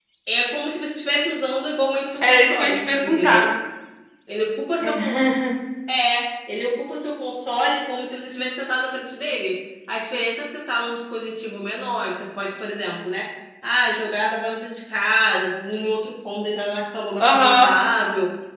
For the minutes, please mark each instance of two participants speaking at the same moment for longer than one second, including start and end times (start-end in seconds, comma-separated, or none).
2.2-3.4